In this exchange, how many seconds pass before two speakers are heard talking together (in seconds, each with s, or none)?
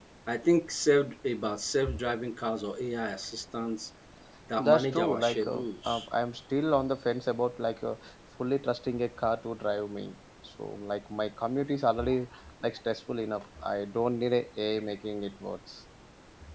4.6 s